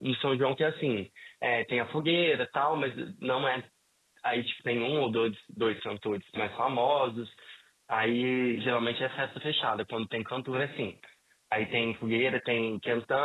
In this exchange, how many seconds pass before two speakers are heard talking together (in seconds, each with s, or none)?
none